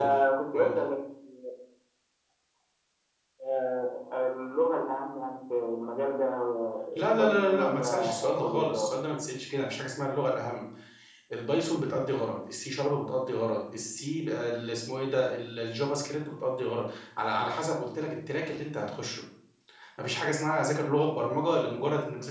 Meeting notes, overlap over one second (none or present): present